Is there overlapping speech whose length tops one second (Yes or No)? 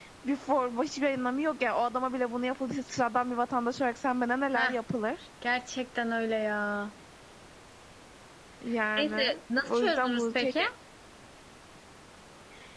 Yes